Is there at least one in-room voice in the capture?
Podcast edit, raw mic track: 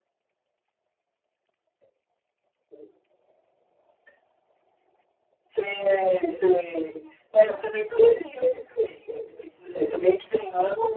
No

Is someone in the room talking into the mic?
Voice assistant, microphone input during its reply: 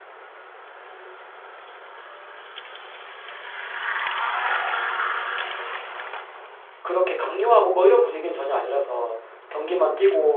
Yes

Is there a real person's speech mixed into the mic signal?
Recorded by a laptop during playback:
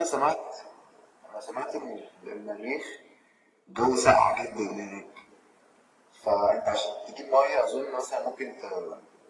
No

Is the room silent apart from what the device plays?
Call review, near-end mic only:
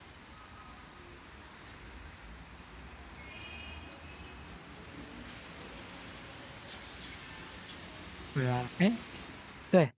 No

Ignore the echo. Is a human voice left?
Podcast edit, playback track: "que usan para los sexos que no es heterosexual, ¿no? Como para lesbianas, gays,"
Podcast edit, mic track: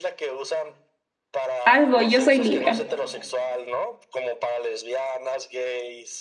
Yes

